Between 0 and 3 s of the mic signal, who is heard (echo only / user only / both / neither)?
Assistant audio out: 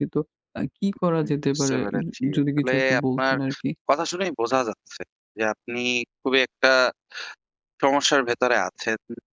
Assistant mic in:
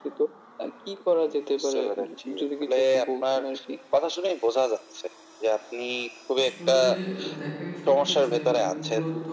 echo only